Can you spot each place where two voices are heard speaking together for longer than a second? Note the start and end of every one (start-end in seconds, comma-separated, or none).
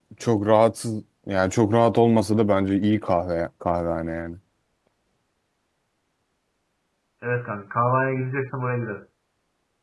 none